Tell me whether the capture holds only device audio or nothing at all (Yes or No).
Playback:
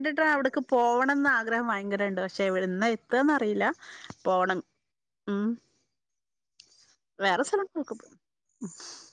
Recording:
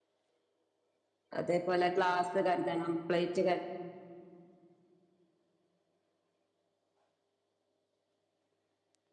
No